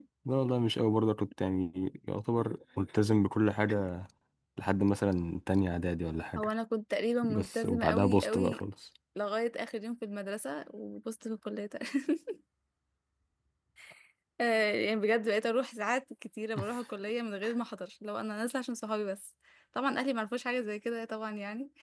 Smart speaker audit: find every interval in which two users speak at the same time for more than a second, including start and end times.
7.2-8.6

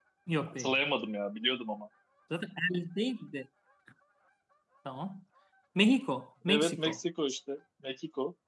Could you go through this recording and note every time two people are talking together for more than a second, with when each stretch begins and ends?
none

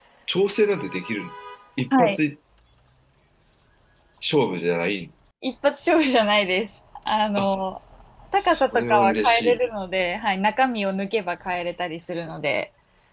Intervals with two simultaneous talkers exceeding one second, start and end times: 8.4-9.6

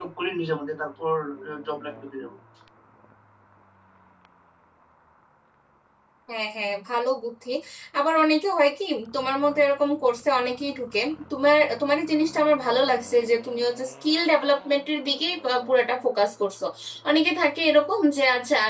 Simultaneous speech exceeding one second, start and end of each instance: none

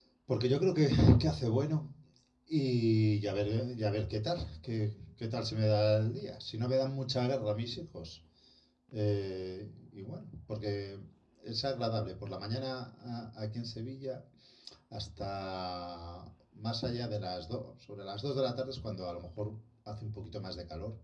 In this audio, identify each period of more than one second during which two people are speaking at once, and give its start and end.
none

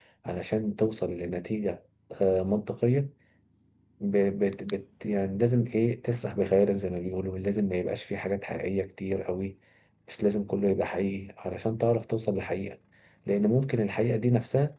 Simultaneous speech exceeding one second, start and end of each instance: none

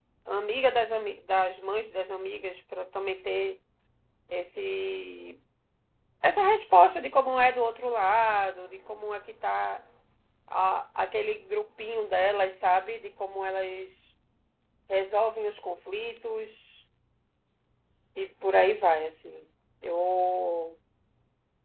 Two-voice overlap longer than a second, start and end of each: none

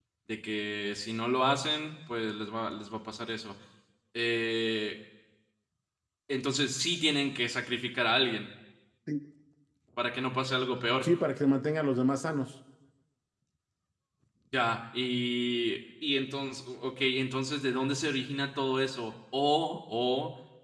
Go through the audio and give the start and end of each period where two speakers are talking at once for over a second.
none

